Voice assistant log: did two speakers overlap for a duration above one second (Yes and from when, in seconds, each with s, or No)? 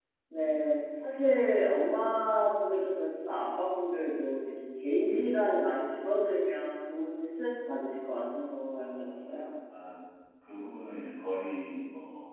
No